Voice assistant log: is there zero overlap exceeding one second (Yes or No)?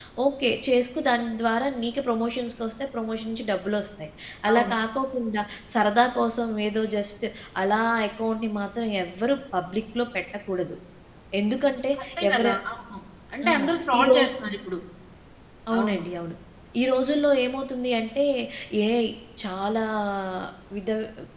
Yes